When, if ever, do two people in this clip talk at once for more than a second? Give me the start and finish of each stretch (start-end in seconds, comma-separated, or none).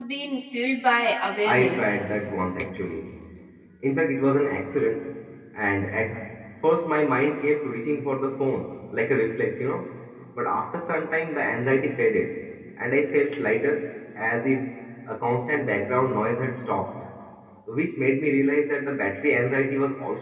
none